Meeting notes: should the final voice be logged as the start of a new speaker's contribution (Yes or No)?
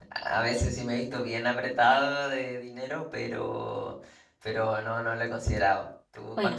Yes